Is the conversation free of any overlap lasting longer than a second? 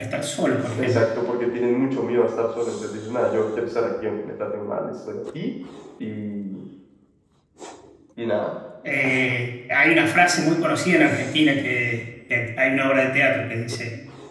Yes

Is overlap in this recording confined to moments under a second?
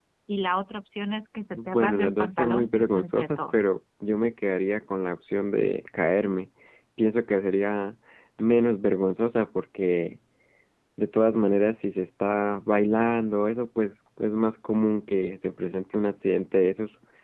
No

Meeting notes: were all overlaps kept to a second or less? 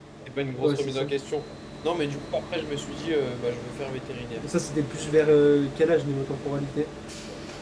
Yes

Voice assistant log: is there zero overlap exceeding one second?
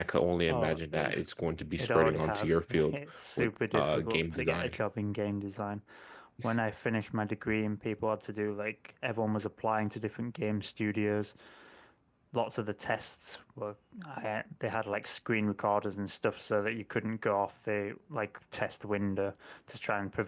No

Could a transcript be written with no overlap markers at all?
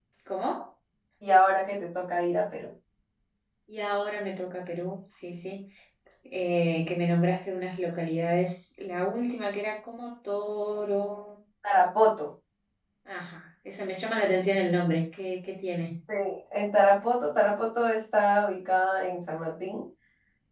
Yes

